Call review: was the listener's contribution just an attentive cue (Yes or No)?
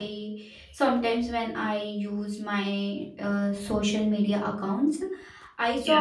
Yes